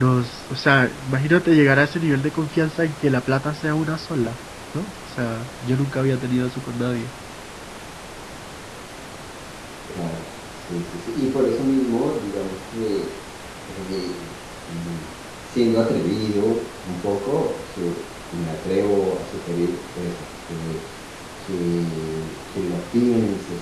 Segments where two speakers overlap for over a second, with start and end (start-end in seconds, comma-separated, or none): none